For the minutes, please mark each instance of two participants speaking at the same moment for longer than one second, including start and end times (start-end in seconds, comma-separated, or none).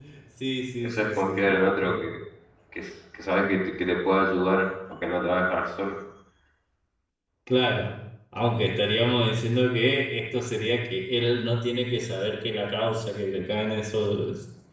0.8-2.1